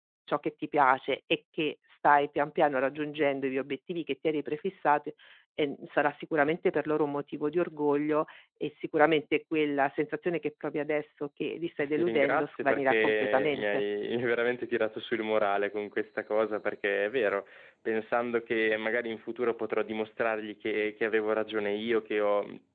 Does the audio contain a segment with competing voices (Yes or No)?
Yes